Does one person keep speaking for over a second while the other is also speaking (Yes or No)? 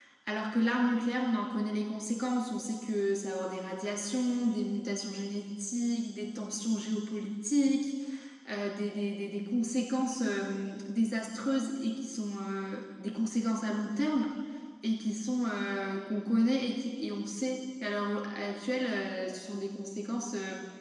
No